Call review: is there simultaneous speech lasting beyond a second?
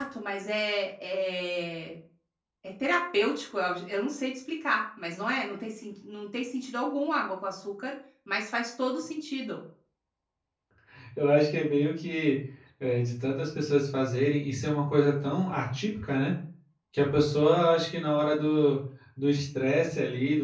No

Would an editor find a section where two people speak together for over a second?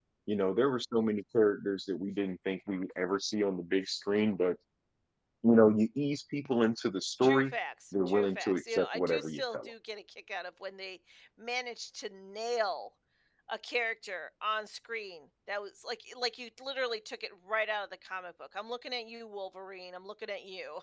Yes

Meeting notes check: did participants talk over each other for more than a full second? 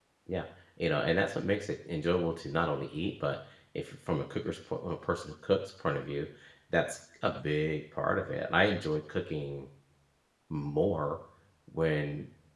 No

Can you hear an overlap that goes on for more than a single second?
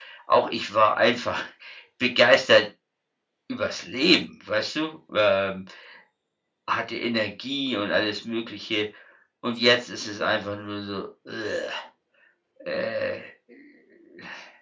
No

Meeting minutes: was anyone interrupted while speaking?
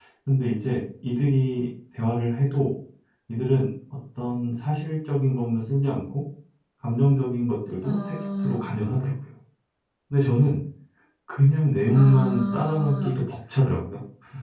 Yes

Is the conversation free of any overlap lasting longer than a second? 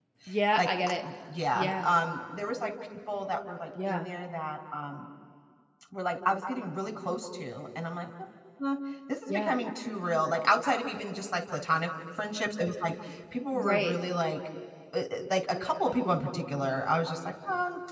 Yes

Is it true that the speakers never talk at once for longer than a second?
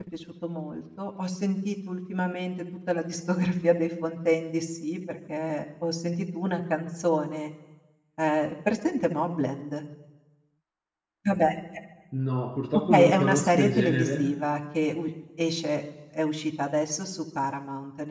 No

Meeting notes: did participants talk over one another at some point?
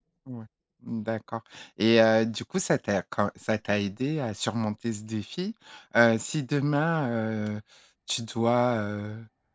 No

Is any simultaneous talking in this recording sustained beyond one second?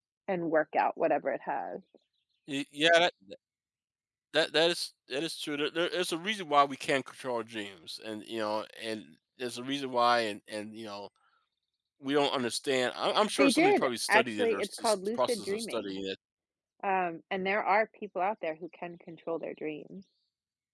Yes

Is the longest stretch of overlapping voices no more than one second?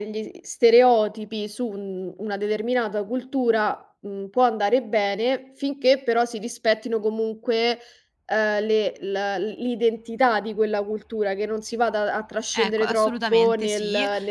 No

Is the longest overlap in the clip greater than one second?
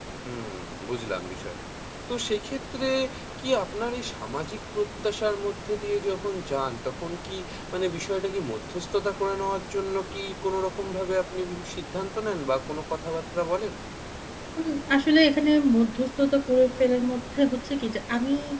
No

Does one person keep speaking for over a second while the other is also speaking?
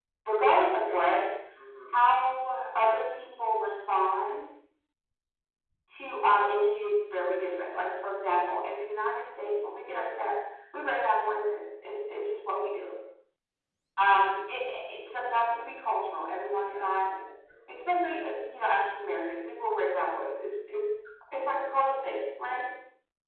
No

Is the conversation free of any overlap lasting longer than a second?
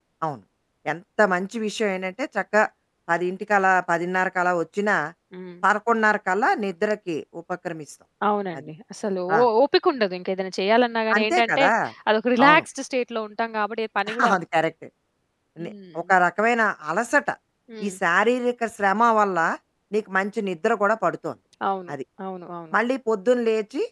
Yes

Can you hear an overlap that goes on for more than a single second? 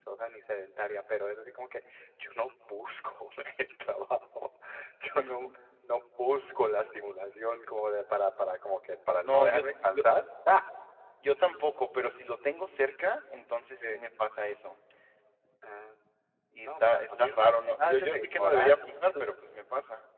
Yes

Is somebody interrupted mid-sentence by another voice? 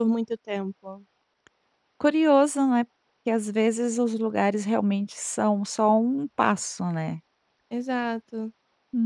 No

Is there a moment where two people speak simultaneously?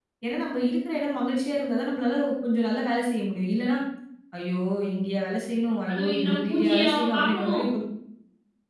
Yes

